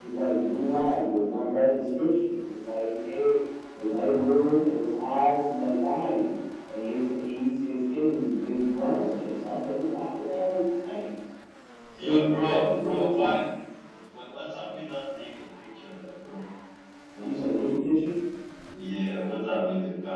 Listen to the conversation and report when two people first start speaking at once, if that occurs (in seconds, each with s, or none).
12.0 s